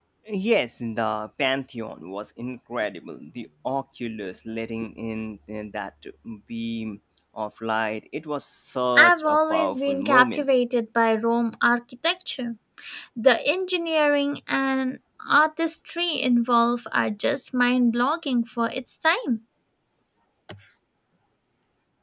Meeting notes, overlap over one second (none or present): present